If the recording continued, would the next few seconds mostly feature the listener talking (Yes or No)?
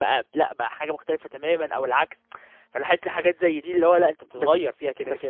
Yes